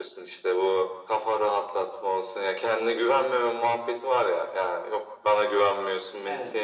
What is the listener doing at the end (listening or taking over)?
listening